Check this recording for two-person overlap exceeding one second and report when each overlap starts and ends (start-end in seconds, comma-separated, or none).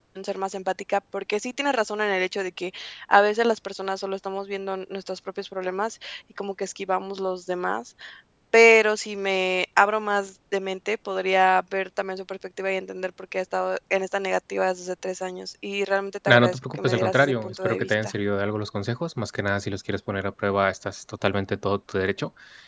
16.3-18.1